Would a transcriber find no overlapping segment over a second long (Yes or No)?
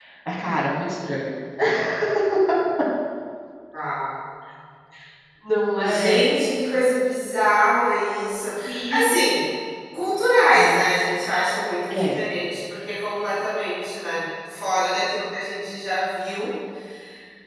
Yes